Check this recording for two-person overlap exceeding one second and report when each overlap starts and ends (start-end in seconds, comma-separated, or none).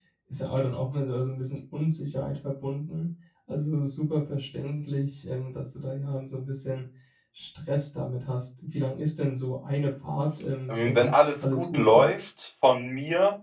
10.7-12.1